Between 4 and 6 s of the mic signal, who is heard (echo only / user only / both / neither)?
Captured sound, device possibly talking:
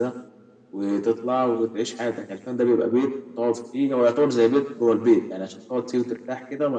echo only